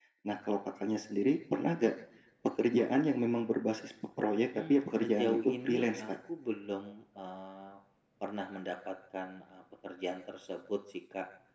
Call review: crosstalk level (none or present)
present